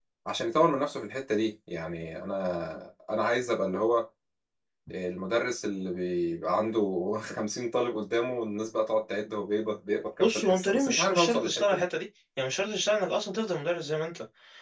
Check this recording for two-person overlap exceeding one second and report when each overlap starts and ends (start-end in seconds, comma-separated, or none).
10.2-11.8